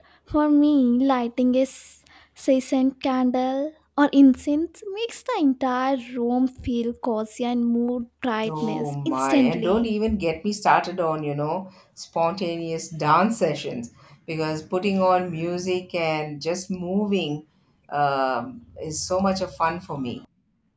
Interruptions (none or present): present